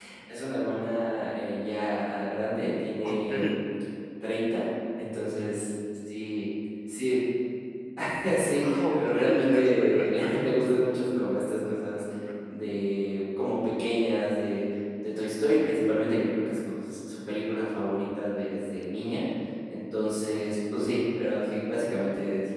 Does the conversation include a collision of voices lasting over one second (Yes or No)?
Yes